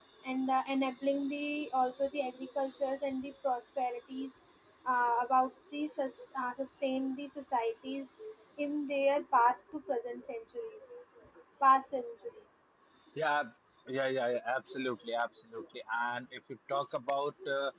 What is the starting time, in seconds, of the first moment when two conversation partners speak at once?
none

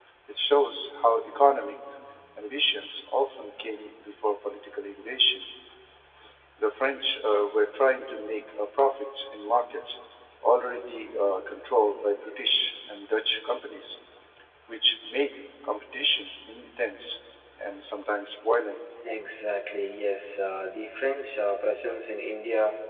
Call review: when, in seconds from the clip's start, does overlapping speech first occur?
none

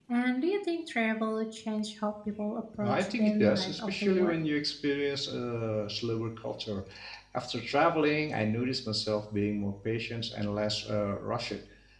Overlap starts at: 2.8 s

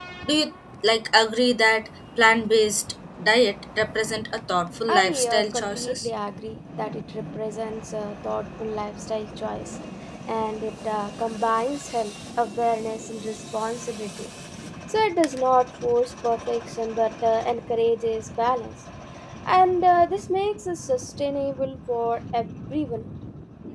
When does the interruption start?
4.9 s

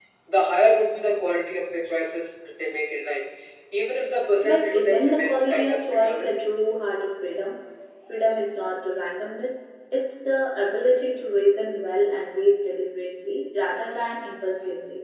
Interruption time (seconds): 4.4 s

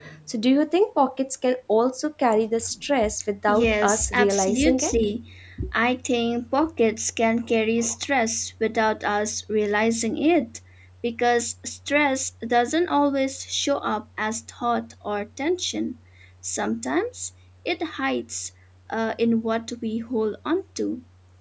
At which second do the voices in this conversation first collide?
3.5 s

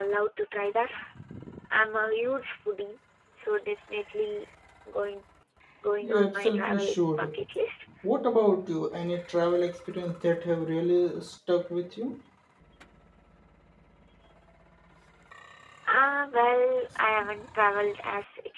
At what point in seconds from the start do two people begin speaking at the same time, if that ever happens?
6.0 s

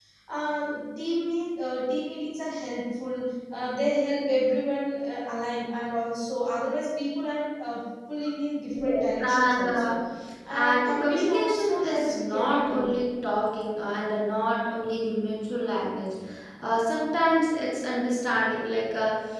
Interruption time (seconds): 8.7 s

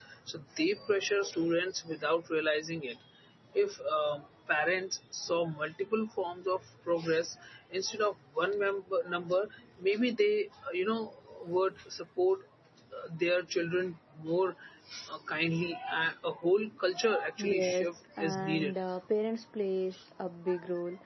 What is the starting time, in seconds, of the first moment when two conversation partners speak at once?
17.4 s

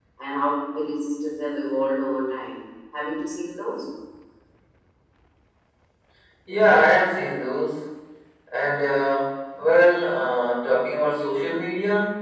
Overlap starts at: none

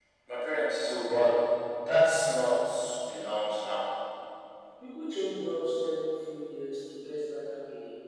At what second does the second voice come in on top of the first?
none

